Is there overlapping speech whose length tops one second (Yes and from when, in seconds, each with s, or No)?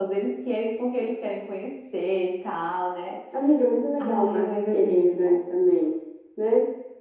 Yes, from 4.0 s